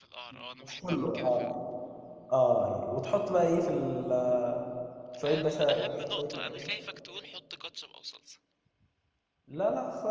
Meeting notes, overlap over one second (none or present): present